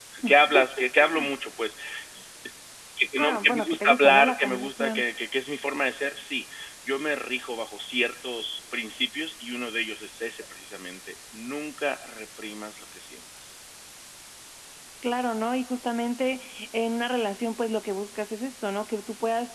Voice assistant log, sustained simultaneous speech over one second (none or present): present